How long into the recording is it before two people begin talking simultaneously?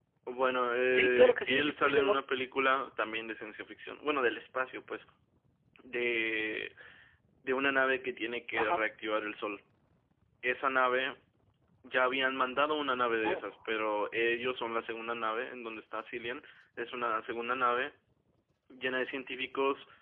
0.9 s

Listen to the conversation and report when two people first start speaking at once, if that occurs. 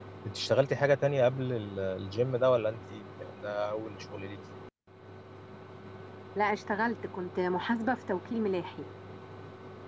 none

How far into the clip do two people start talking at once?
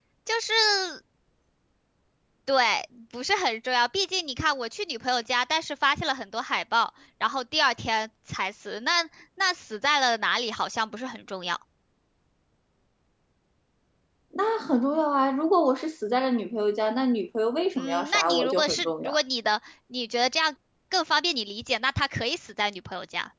17.8 s

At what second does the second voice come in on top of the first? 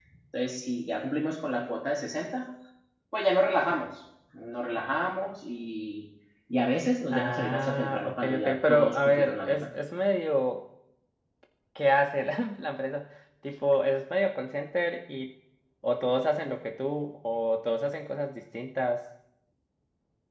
7.1 s

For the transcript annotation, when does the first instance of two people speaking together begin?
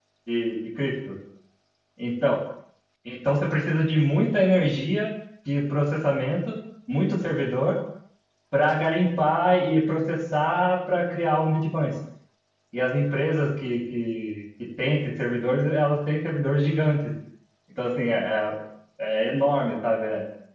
none

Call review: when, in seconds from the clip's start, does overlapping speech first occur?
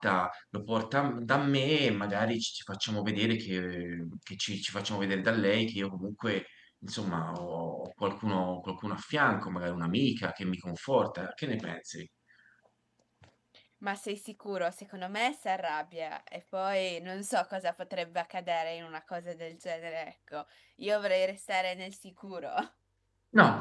none

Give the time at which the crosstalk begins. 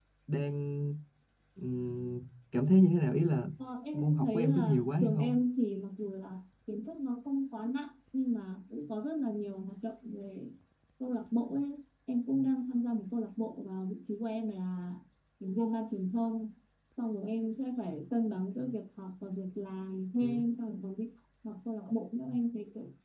3.9 s

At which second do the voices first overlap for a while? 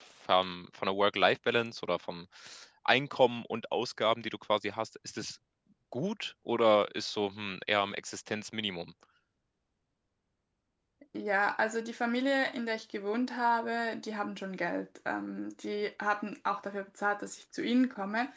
none

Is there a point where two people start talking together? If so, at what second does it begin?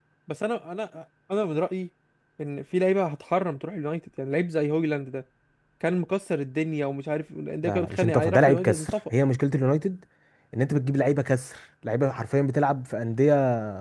7.6 s

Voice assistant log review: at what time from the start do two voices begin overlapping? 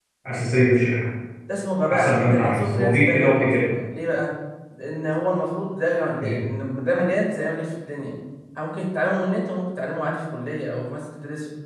1.9 s

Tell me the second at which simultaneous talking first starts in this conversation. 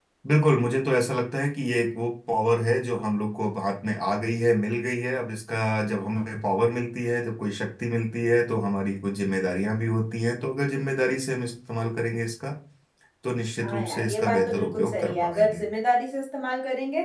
13.6 s

